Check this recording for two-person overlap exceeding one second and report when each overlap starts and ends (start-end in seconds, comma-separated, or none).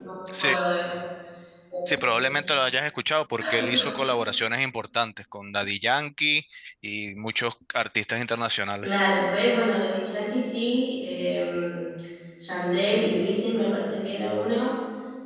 none